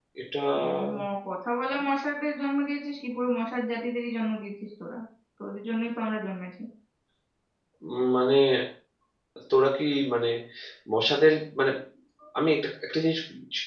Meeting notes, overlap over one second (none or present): none